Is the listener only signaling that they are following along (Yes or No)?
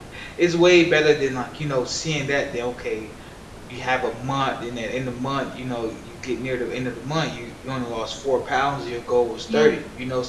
Yes